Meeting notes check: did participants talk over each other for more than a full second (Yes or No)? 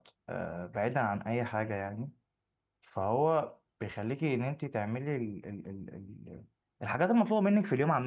No